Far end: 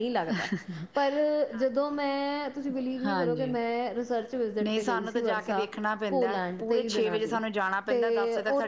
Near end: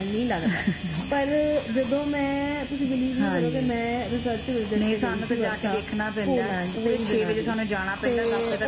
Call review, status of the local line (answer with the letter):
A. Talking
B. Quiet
B